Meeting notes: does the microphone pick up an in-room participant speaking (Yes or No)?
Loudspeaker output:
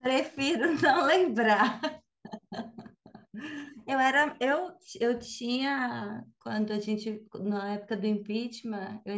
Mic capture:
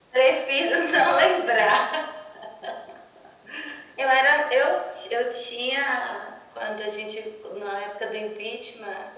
No